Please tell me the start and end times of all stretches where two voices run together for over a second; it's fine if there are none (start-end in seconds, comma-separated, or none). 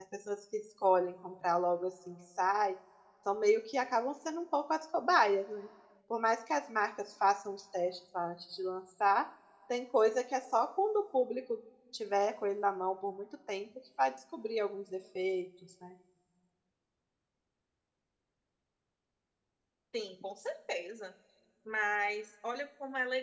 none